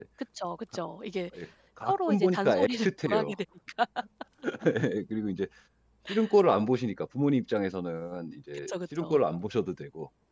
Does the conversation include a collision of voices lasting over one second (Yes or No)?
Yes